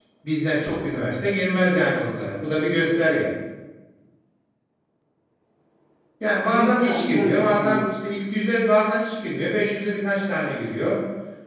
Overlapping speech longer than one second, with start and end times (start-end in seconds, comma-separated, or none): 6.5-7.8